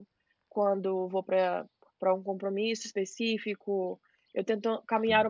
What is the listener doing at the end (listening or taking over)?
listening